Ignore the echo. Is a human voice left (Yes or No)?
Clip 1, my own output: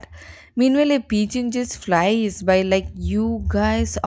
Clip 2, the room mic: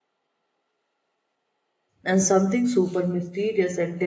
Yes